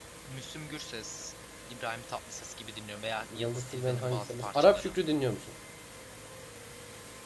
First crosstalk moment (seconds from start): 3 s

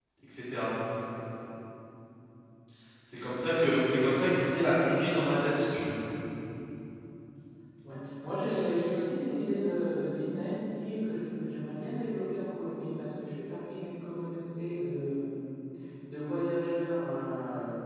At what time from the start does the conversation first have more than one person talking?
none

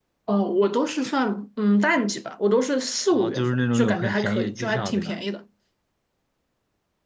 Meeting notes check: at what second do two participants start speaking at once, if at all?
3 s

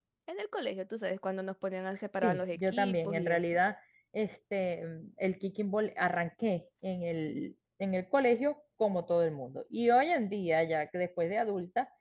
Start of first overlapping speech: 2 s

